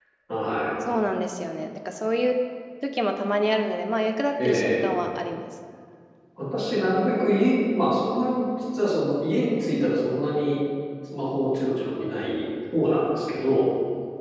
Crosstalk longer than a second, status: none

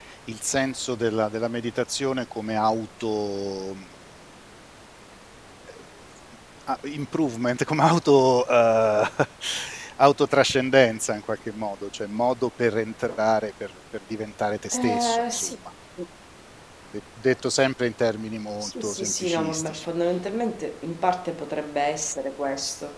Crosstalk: present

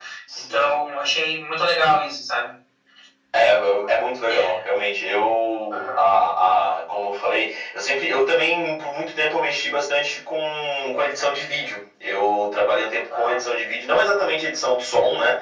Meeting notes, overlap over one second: none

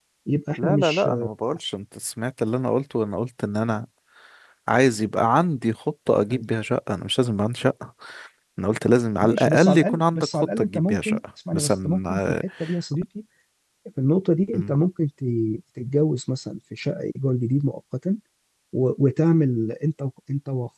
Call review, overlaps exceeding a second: present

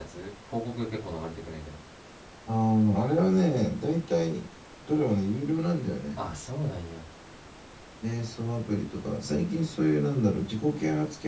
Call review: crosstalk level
none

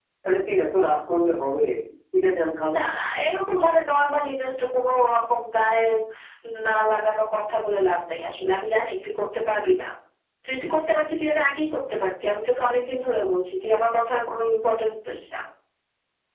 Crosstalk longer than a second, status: none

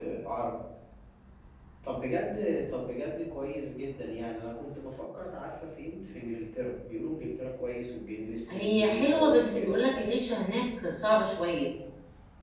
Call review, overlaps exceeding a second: present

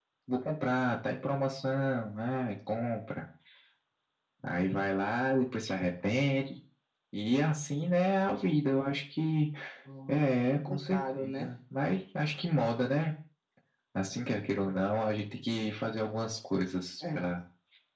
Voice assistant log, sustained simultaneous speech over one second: present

